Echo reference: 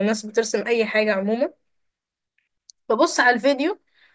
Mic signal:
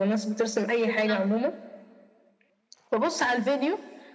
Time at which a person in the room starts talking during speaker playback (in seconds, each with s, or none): 0.9 s